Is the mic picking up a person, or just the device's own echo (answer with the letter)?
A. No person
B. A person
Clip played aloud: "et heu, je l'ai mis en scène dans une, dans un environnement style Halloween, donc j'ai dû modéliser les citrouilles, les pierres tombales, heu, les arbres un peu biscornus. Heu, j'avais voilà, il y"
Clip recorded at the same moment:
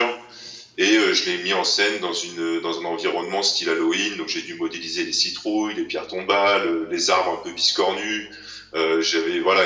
A